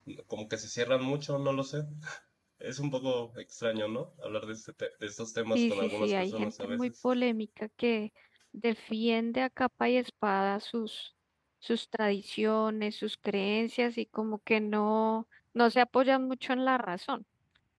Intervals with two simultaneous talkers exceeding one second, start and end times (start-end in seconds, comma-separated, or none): 5.5-6.9